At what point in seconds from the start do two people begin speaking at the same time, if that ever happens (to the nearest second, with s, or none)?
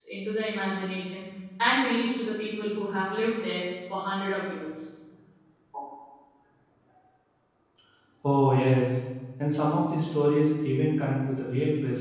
none